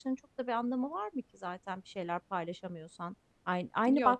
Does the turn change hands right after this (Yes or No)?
No